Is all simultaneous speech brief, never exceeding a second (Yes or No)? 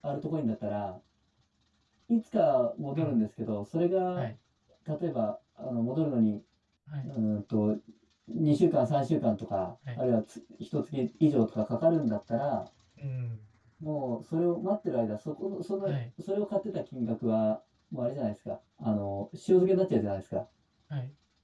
Yes